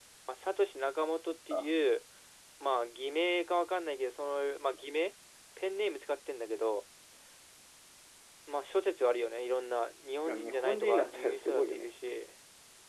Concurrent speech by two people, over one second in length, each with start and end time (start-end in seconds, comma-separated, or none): 10.2-11.9